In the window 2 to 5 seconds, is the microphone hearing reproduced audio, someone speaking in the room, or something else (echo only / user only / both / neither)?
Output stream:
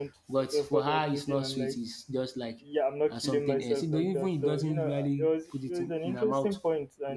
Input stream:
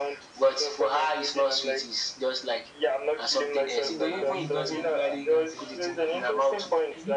both